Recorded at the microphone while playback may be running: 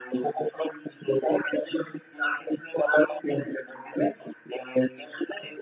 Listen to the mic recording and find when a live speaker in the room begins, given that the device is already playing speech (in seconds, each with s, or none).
none